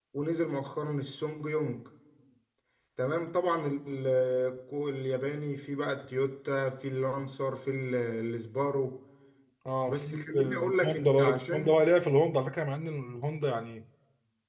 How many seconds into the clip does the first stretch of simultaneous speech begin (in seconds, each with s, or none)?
9.9 s